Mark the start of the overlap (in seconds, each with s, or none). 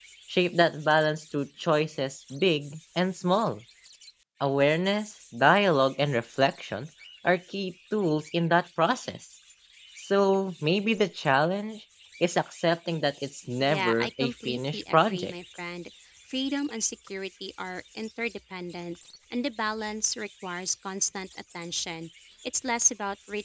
13.6 s